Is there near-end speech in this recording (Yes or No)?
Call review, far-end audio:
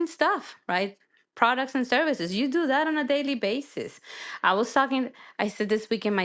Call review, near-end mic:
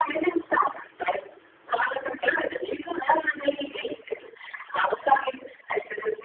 No